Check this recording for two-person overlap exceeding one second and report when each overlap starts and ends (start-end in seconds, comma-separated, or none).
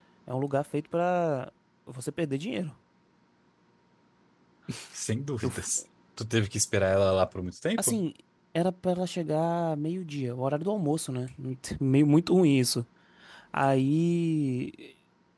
none